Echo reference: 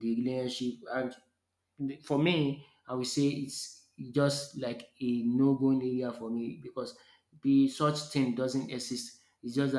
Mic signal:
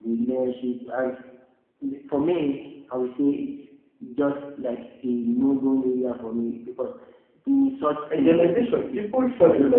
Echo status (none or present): present